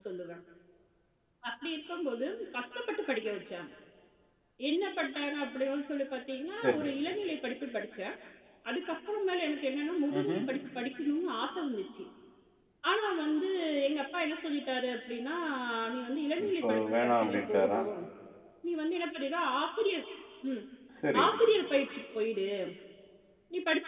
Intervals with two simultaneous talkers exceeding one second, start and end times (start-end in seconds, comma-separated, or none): 16.5-17.8